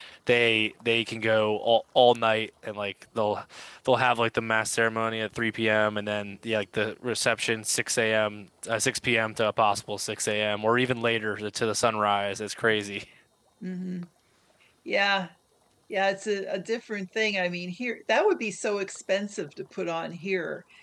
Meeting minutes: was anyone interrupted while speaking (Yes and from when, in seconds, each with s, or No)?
No